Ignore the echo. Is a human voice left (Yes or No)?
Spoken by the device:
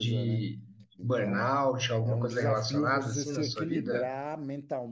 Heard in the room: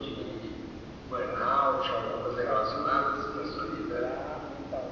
No